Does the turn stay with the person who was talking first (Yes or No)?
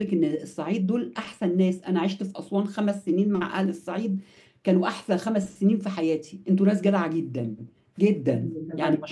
Yes